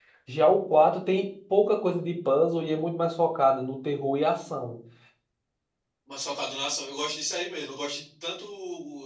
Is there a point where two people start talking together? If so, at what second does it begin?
none

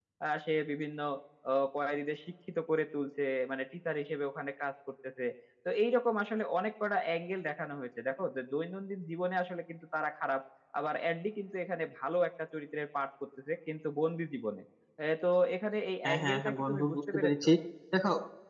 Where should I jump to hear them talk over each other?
16.0 s

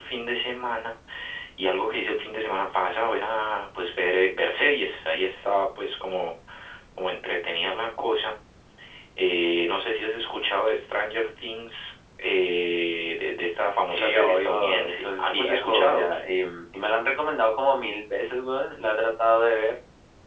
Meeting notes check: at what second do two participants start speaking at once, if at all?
13.9 s

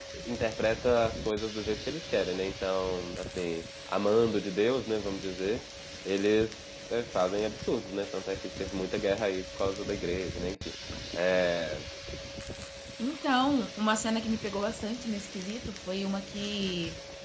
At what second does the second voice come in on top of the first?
none

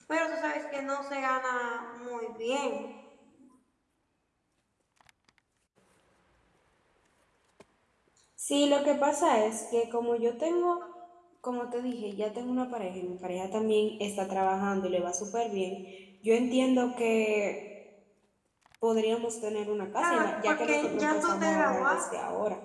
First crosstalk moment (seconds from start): 20.0 s

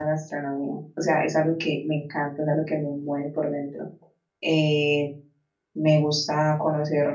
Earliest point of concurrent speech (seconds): none

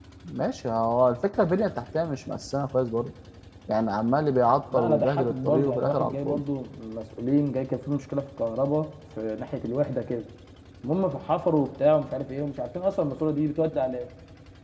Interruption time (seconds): 4.7 s

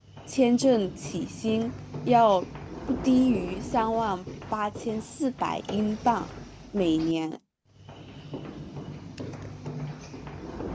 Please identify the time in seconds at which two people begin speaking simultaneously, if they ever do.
none

